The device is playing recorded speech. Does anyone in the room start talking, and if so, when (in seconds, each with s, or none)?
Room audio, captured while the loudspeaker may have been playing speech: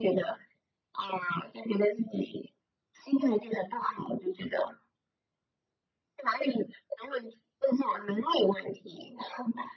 none